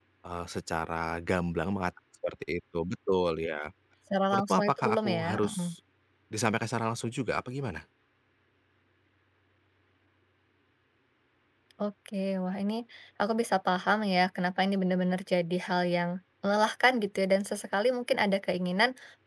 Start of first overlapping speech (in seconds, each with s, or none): 4.3 s